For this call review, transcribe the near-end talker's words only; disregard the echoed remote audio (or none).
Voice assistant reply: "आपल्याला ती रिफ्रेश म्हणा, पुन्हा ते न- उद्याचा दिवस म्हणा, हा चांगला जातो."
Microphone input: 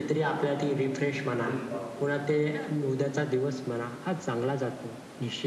अरे बापरे!